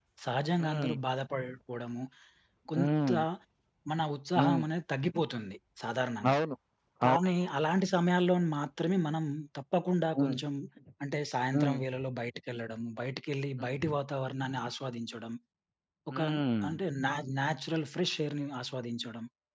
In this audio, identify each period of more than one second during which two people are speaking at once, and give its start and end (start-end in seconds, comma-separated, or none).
none